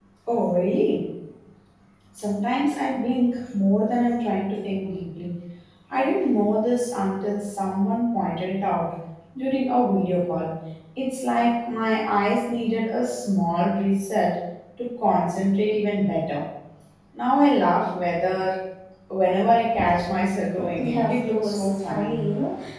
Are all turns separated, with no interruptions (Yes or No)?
No